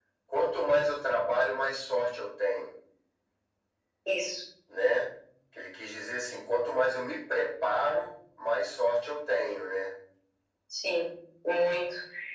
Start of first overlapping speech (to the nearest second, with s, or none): none